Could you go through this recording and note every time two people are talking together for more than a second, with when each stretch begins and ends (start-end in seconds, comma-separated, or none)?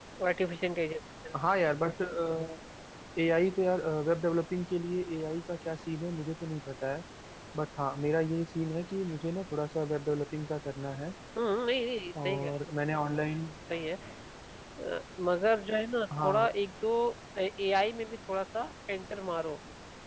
none